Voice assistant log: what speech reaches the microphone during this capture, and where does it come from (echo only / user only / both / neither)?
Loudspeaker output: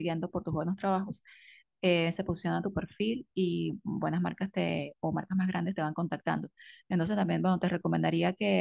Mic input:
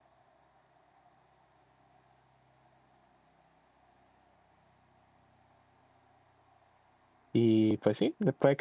user only